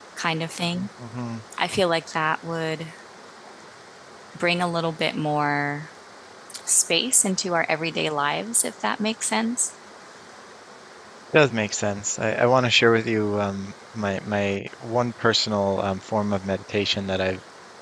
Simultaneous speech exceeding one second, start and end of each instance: none

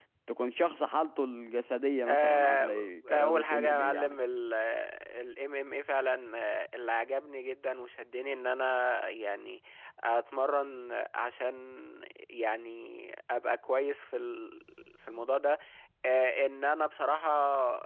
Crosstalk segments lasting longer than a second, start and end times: 2.1-4.2

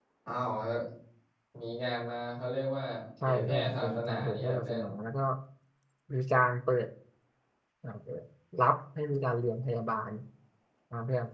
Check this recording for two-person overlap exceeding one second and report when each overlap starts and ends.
3.2-4.8

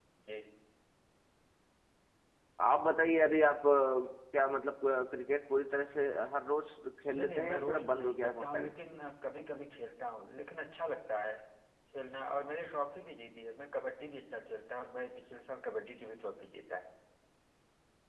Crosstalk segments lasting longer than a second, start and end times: 7.1-8.7

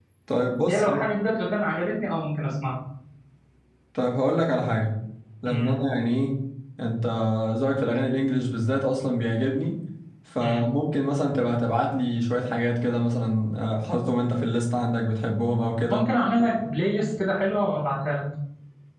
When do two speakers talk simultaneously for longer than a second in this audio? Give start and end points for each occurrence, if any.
none

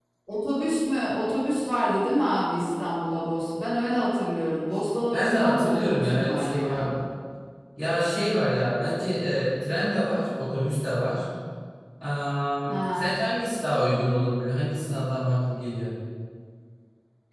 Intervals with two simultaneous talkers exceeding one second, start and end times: 5.1-6.8

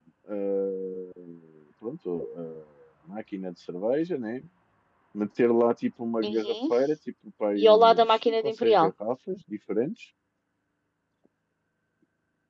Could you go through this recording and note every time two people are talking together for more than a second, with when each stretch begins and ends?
7.6-8.9

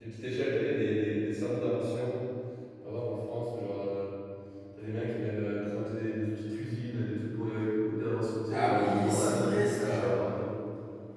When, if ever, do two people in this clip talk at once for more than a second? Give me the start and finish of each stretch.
8.5-10.2

